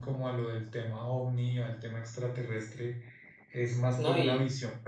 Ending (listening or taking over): taking over